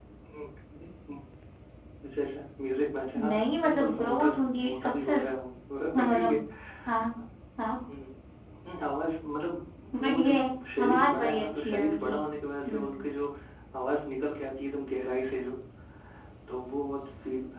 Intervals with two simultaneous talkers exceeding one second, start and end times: 3.3-5.3, 10.8-12.2

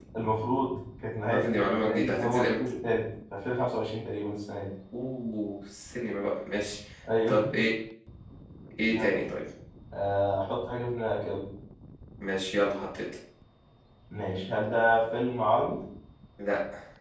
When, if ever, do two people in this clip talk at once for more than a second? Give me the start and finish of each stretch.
1.3-2.6

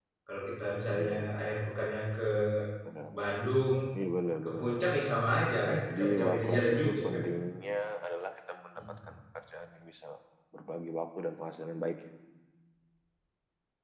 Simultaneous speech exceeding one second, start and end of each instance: 6.0-7.2

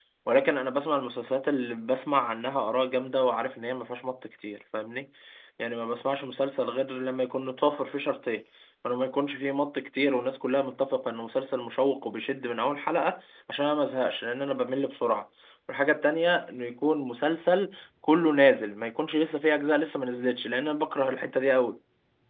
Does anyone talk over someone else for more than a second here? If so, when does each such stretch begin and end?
none

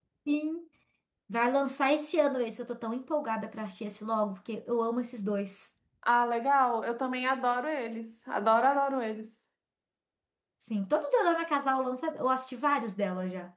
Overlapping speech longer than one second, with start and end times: none

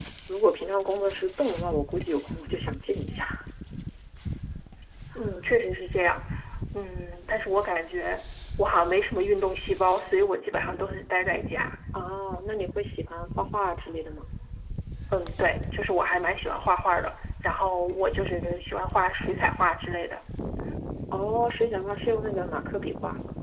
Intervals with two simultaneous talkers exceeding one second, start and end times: none

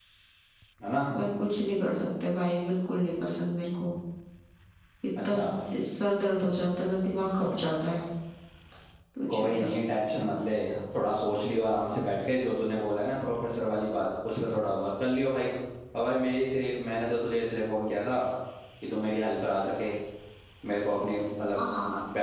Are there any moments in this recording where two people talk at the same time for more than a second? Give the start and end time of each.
none

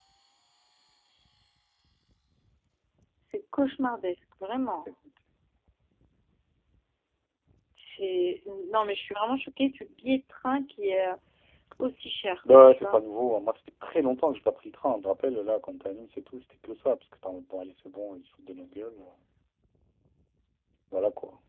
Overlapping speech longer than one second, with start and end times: none

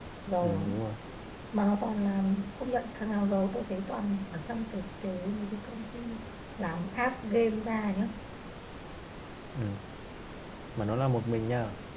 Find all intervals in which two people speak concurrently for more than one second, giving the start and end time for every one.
none

